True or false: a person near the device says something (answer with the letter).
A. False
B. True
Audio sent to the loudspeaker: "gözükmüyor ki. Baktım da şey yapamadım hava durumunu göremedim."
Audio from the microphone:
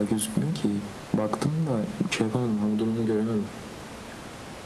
A